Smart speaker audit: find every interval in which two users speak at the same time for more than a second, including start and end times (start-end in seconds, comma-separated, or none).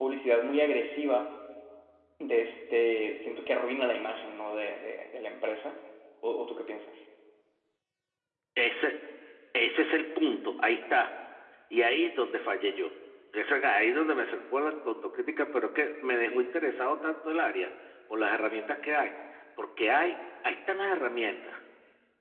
none